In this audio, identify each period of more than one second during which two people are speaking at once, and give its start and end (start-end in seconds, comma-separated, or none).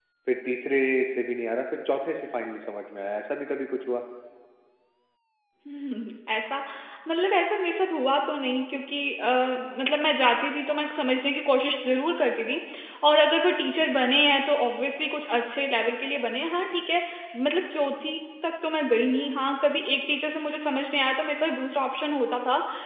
none